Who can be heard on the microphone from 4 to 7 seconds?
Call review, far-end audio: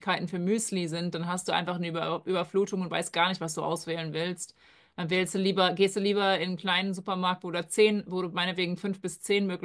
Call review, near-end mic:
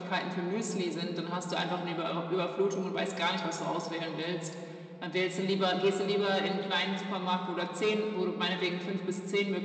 echo only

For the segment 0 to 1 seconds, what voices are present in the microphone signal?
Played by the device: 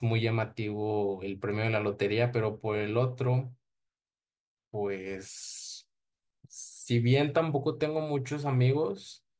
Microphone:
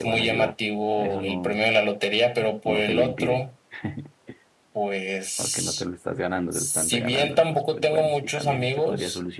both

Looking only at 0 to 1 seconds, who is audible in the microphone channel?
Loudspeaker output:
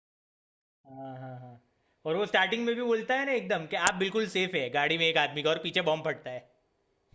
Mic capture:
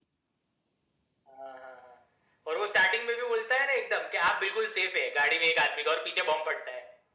neither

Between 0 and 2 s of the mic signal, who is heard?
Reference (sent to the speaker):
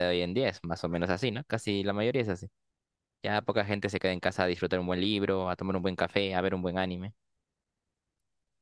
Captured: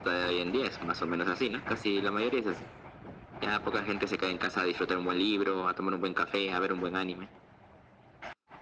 echo only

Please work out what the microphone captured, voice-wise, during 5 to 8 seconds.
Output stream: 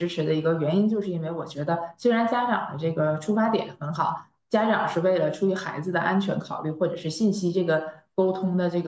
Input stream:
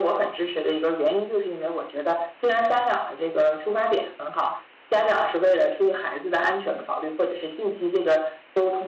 echo only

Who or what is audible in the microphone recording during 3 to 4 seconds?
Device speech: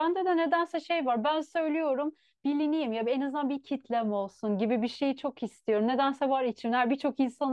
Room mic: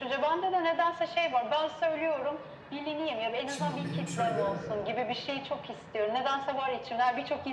both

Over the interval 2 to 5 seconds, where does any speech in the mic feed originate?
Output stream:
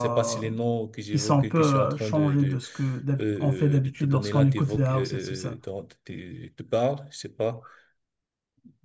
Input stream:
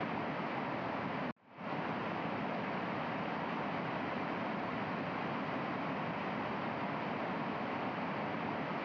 neither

